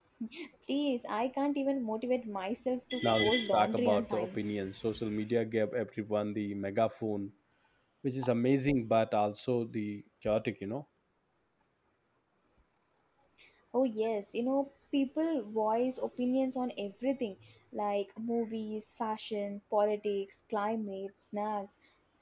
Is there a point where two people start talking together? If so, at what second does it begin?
3.0 s

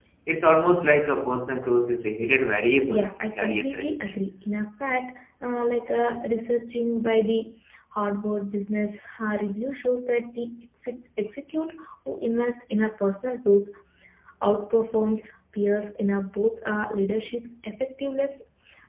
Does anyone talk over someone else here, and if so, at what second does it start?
2.9 s

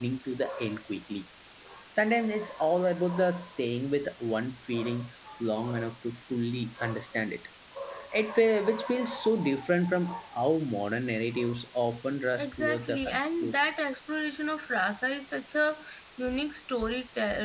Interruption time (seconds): 12.4 s

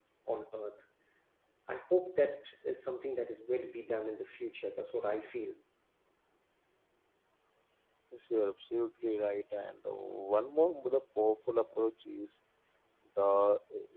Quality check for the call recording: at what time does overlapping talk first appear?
none

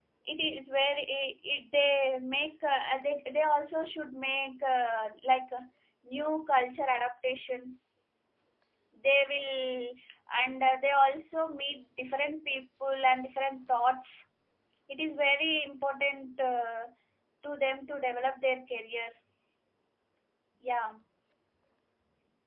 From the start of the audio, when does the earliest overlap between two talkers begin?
none

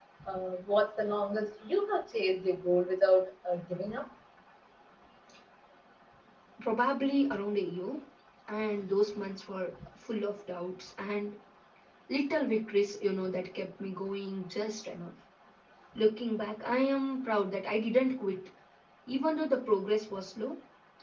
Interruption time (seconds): none

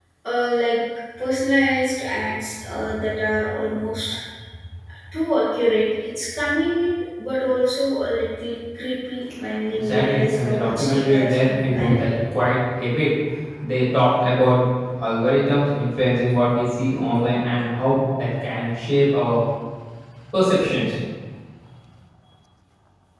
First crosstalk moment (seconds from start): 9.7 s

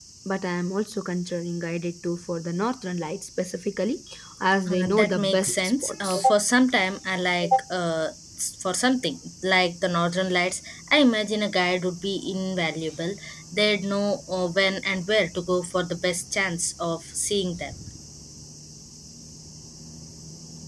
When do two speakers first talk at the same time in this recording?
4.7 s

